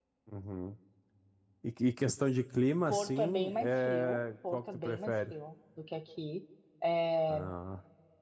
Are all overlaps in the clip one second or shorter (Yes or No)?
No